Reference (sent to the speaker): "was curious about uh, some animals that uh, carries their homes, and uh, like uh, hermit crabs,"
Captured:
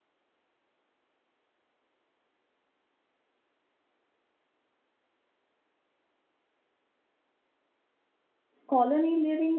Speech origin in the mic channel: user only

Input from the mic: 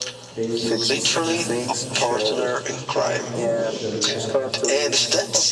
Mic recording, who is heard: both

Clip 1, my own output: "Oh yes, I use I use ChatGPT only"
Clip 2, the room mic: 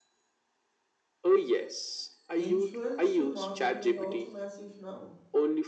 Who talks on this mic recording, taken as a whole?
both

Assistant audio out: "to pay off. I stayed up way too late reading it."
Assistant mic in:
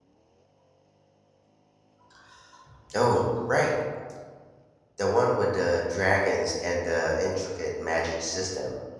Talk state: user only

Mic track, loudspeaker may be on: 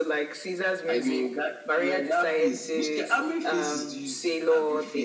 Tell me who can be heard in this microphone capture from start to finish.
echo only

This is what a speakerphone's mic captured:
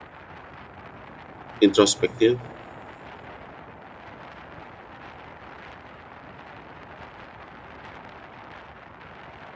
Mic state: user only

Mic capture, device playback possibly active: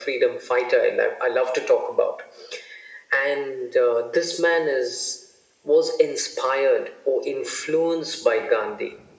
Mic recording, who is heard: echo only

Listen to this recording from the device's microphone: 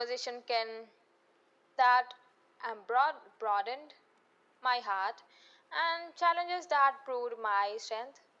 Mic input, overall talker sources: echo only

